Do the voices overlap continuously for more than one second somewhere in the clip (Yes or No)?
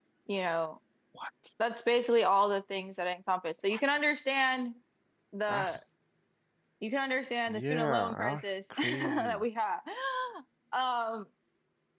Yes